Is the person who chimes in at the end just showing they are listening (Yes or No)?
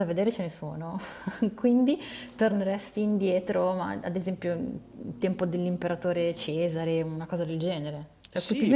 No